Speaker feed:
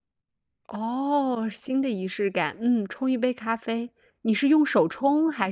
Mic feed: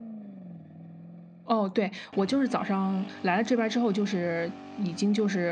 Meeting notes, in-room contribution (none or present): present